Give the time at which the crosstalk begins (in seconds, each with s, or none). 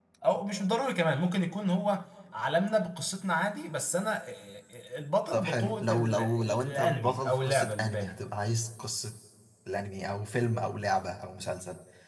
5.3 s